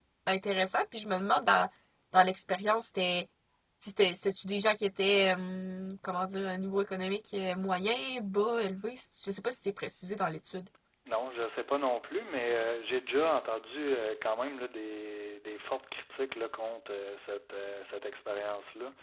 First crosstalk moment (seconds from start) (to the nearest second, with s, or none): none